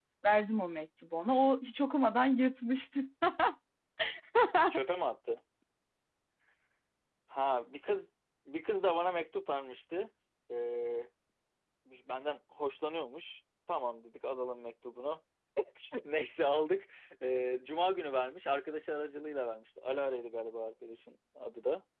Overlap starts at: none

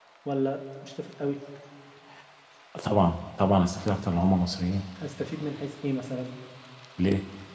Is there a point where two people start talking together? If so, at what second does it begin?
none

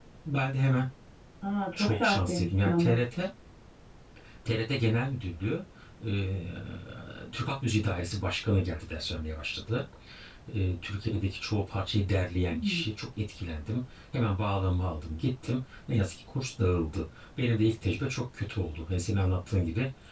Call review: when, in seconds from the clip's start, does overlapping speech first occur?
1.8 s

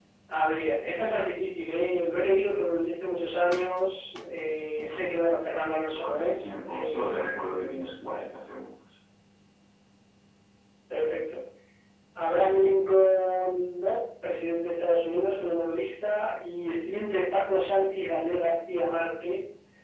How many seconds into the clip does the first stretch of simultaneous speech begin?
5.9 s

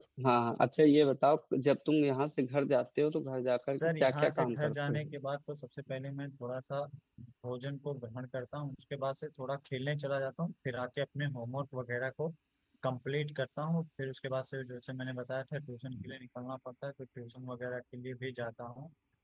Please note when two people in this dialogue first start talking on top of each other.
3.7 s

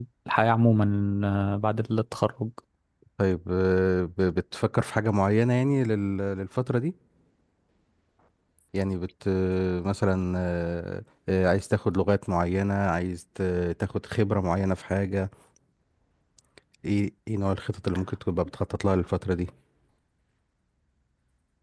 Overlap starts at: none

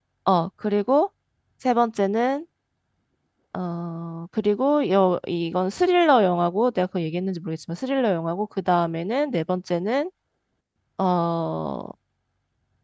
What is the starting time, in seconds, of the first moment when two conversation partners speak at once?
none

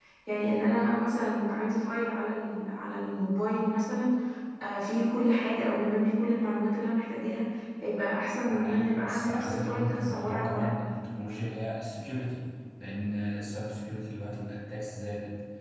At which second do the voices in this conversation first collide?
8.5 s

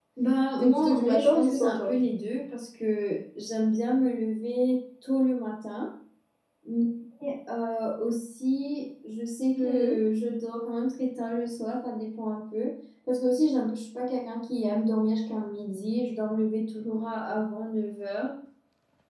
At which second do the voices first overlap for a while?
0.6 s

